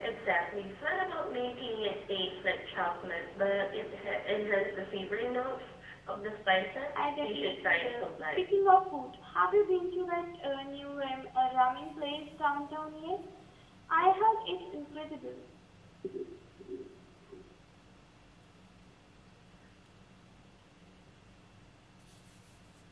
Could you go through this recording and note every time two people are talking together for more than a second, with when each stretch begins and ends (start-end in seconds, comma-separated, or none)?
7.0-8.4